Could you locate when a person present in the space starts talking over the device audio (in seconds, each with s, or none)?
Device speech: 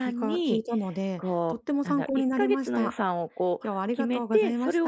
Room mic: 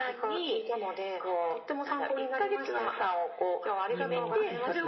3.9 s